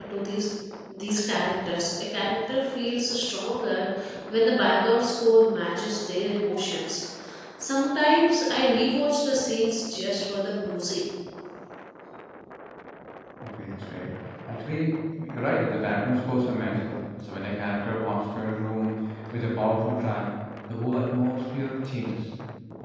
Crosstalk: none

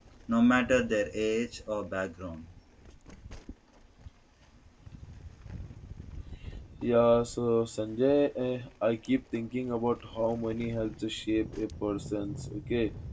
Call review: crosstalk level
none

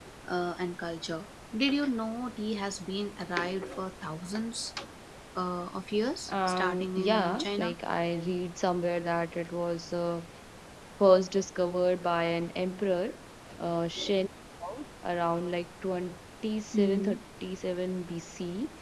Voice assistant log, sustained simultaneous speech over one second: present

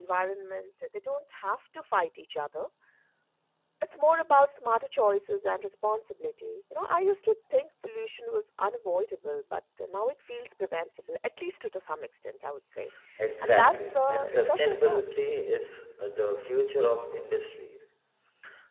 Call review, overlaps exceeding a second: present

